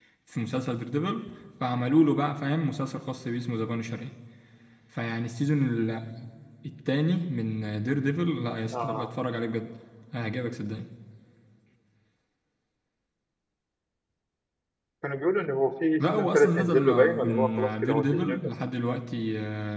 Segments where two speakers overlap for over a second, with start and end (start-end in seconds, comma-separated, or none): 16.0-18.5